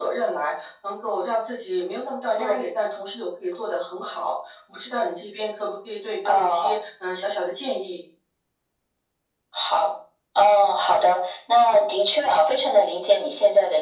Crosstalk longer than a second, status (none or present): none